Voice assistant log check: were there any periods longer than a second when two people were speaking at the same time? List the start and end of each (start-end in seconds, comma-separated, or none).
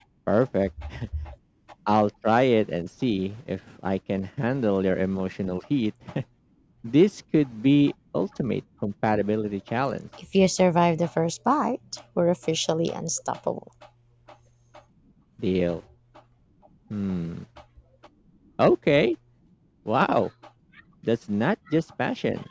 none